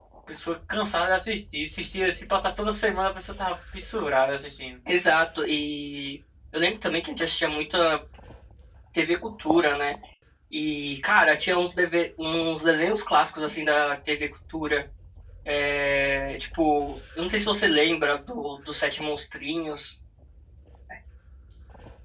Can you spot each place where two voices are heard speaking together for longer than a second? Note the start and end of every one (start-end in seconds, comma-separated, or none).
none